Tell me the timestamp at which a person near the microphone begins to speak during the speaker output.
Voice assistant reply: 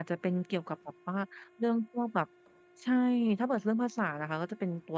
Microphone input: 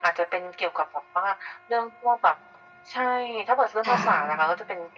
3.9 s

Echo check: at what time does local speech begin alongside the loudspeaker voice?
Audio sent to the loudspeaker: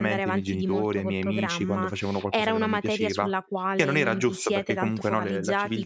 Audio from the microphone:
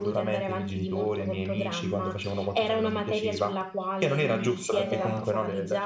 4.2 s

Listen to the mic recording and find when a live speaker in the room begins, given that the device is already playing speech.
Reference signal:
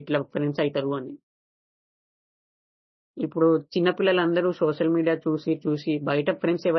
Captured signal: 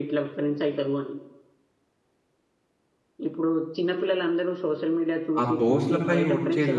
5.4 s

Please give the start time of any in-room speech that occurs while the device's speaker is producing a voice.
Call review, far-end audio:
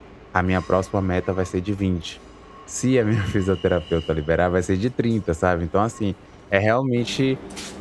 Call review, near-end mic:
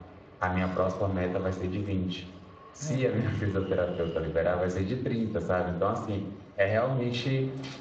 2.8 s

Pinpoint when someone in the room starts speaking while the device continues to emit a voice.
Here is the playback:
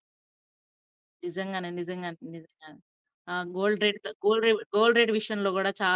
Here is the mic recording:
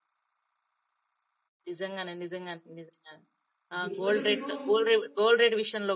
3.7 s

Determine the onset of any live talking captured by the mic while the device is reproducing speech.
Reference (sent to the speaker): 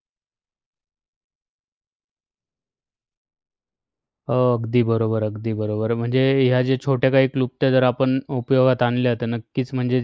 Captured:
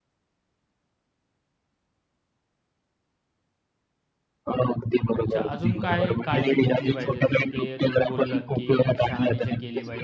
5.1 s

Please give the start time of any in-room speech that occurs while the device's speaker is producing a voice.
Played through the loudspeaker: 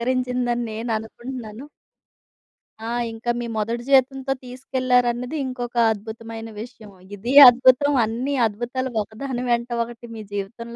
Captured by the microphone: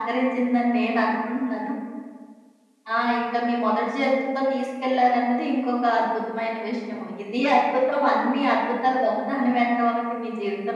none

